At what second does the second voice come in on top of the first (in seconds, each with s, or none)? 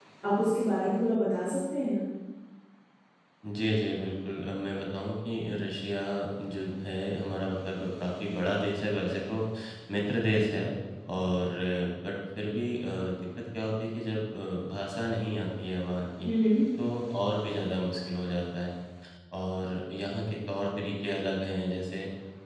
none